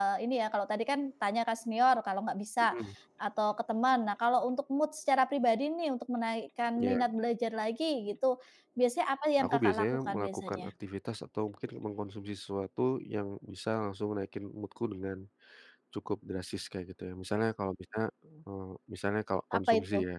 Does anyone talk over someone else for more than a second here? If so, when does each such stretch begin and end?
9.4-10.7

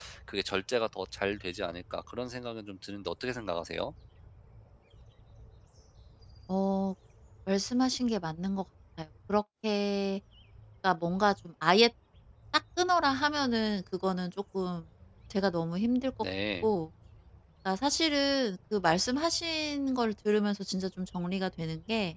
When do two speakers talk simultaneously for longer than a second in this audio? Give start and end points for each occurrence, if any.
none

